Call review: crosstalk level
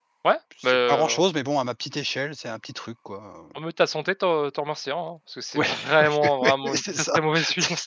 present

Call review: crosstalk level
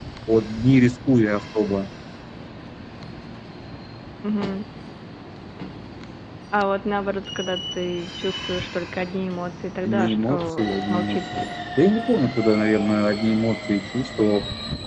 present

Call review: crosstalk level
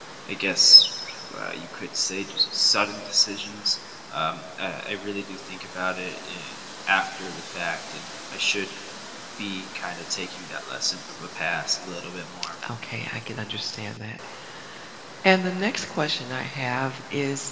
none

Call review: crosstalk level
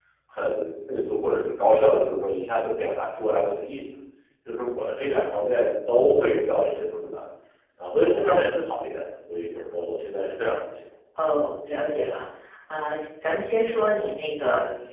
none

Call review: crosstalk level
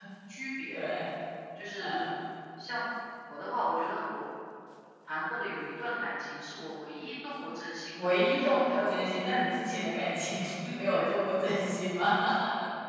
present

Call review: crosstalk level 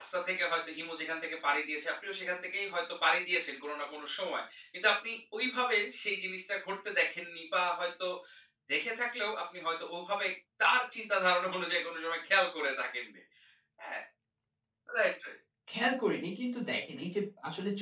none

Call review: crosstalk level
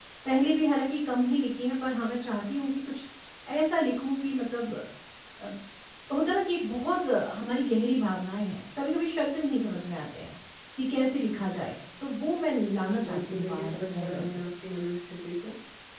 present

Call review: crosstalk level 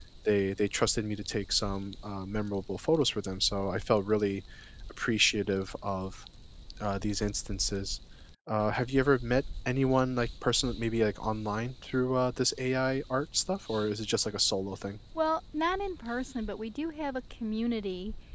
none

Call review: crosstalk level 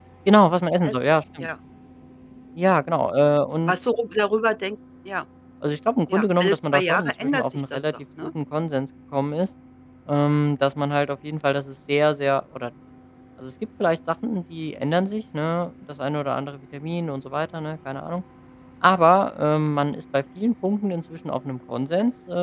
present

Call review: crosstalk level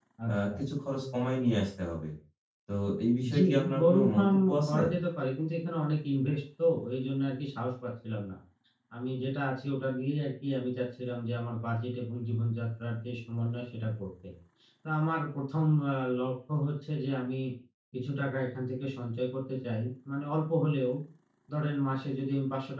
present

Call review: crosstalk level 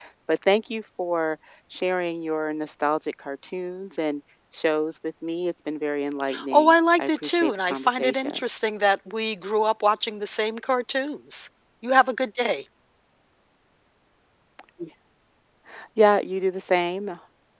present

